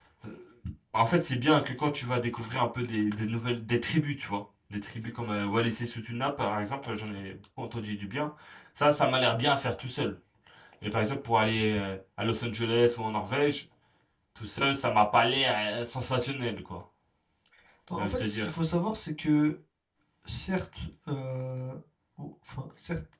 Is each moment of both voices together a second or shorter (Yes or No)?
Yes